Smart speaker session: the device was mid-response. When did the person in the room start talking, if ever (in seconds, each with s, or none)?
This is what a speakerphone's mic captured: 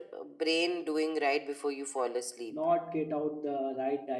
2.5 s